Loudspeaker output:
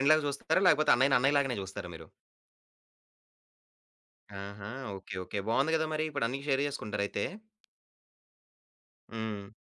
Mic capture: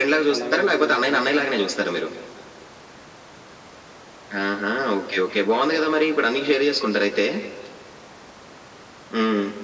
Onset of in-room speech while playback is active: 0.3 s

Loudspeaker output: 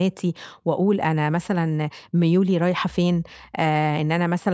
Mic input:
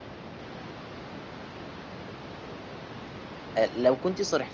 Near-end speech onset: 3.6 s

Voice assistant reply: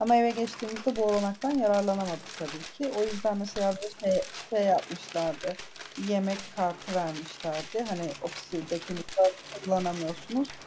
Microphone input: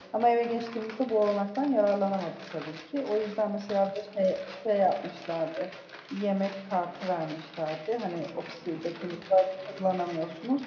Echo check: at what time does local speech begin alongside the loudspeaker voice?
none

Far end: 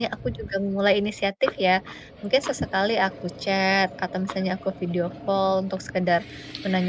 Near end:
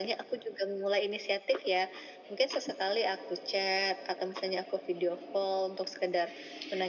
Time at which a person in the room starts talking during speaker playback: none

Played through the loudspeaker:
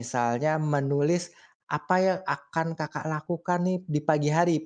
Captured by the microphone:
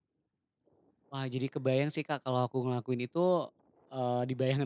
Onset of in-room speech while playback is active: 1.1 s

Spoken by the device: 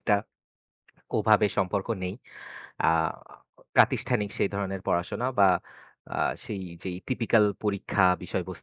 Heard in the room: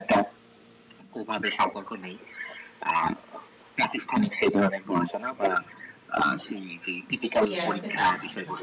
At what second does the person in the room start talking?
7.5 s

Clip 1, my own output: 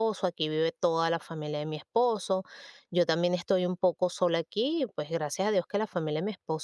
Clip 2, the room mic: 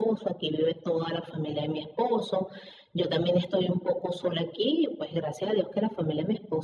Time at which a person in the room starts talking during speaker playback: none

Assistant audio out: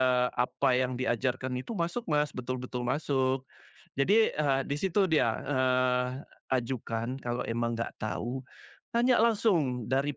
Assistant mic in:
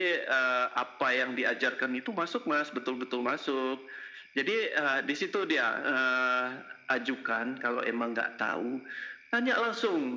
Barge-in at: none

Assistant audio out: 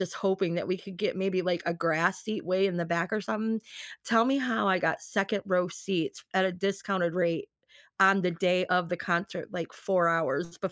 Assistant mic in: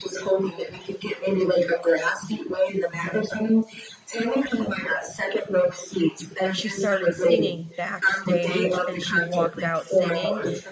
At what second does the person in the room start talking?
6.5 s

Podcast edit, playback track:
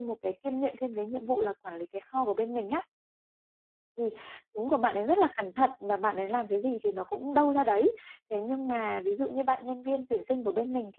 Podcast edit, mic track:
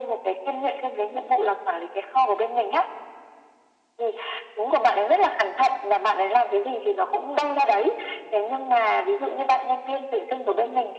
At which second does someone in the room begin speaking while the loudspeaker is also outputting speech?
none

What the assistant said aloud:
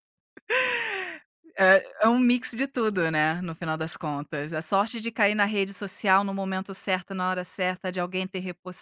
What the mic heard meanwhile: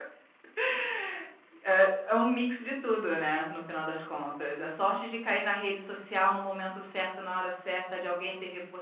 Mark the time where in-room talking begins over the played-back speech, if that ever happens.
none

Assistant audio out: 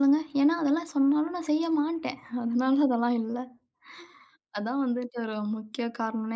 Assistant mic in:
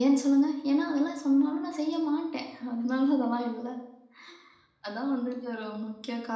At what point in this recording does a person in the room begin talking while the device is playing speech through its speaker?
none

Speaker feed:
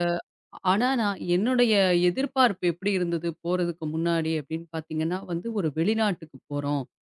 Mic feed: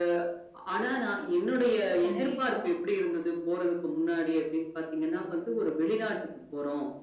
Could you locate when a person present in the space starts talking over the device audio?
1.8 s

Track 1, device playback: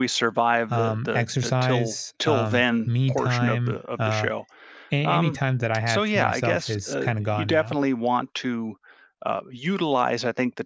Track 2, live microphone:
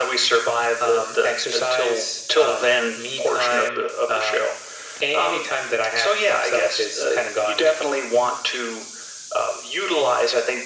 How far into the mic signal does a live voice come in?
none

